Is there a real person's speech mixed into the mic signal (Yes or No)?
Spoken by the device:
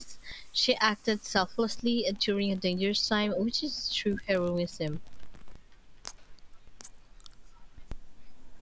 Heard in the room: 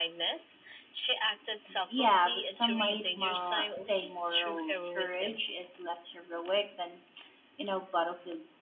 Yes